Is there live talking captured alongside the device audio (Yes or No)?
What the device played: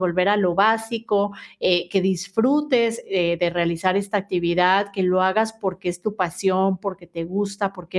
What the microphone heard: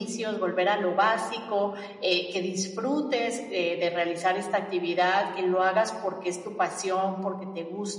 No